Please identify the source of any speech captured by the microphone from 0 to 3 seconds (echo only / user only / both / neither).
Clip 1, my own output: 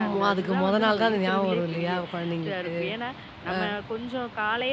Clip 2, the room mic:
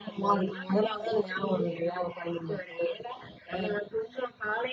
echo only